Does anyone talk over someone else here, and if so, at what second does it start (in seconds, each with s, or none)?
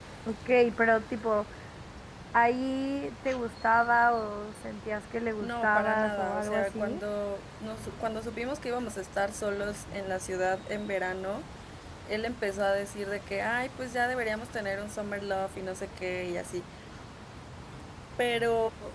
5.4 s